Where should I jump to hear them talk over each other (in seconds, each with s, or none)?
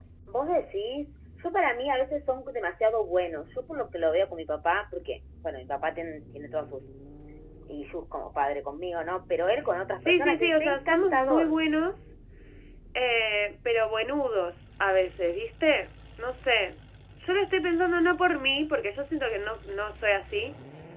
10.0 s